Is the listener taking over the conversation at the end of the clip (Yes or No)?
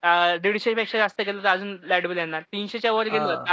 No